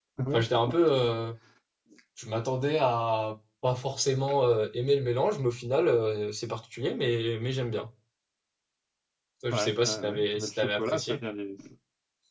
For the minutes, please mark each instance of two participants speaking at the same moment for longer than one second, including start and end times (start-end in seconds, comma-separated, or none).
9.5-11.2